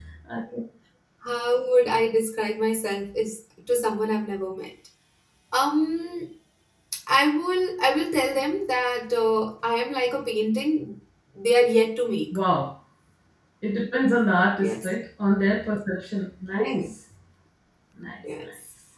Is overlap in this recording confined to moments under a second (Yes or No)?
Yes